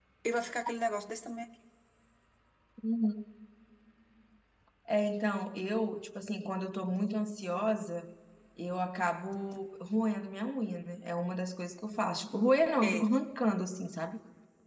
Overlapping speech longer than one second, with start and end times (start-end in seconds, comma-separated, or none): none